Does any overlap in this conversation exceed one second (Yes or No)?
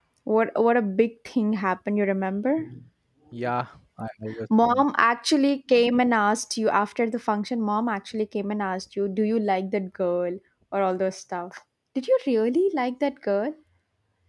No